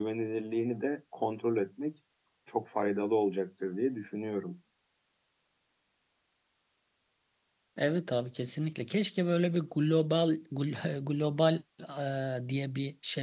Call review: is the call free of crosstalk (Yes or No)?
Yes